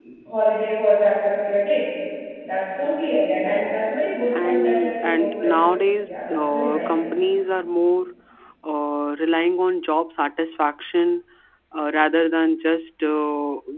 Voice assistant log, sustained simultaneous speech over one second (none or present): present